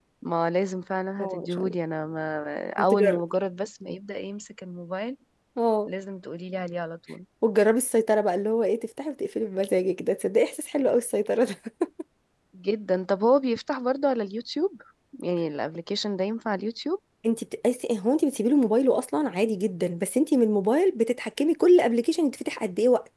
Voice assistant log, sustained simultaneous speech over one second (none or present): none